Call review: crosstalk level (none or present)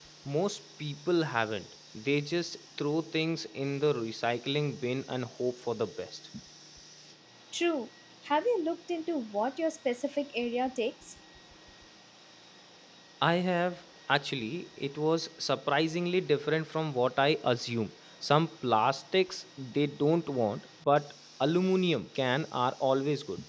none